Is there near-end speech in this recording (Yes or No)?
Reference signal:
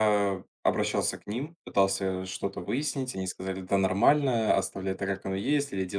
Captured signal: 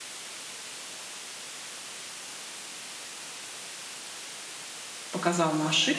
Yes